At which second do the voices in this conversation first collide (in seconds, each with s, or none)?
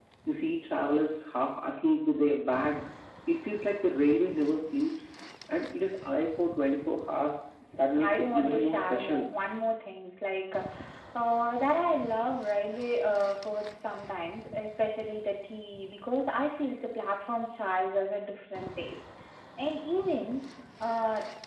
7.7 s